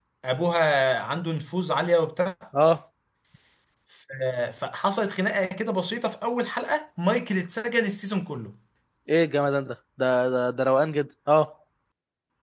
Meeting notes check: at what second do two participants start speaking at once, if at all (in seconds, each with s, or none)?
none